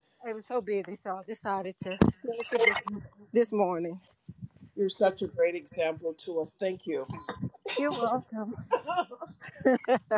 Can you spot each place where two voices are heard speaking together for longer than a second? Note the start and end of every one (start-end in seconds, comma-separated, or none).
none